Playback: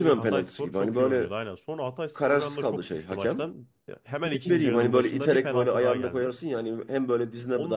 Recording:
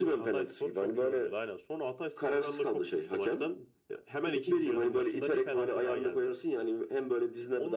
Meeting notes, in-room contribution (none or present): none